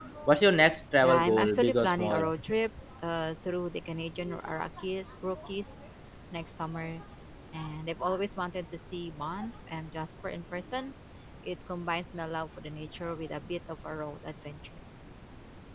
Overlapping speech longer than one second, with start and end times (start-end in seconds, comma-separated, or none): 1.0-2.3